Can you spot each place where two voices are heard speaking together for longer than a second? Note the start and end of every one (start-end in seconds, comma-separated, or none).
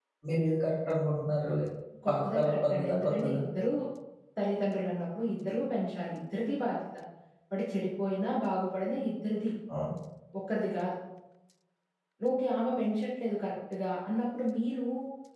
2.1-3.4